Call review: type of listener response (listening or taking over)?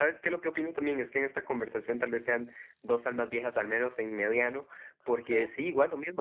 listening